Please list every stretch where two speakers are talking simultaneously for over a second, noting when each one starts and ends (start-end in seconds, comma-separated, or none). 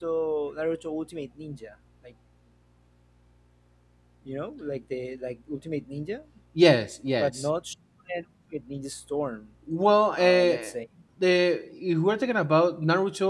none